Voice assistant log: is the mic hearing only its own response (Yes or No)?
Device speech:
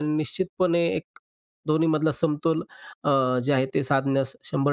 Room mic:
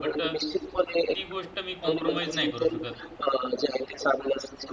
No